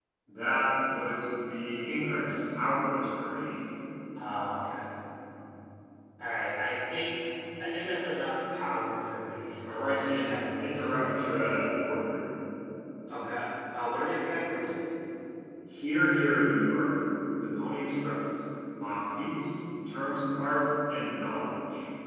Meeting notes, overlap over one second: present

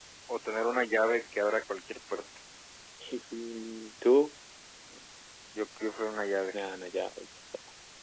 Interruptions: none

